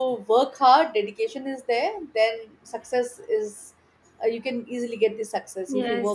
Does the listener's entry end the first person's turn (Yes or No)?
Yes